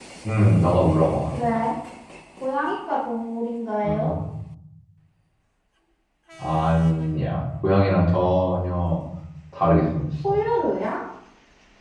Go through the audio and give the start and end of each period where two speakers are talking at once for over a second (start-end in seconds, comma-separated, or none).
none